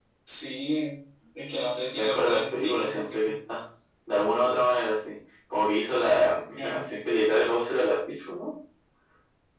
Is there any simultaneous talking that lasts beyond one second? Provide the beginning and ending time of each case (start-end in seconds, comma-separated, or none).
1.9-3.3